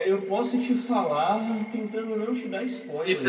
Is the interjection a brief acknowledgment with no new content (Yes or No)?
No